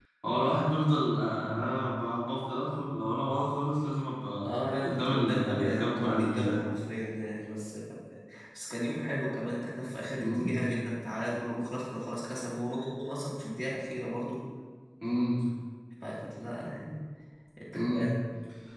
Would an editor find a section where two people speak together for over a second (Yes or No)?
Yes